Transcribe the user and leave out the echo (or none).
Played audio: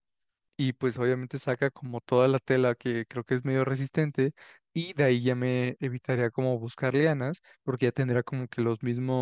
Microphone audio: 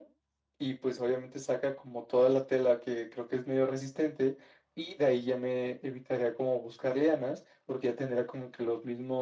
none